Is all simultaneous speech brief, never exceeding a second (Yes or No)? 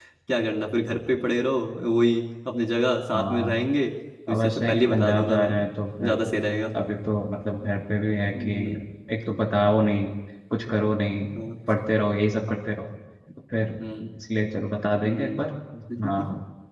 No